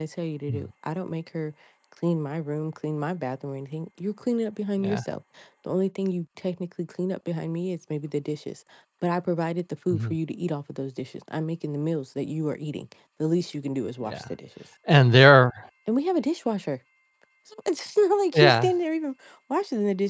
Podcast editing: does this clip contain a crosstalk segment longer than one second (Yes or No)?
No